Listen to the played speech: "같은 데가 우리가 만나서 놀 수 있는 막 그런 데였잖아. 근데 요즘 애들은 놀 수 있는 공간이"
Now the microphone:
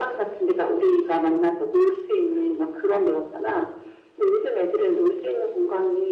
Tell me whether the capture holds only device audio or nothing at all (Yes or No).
Yes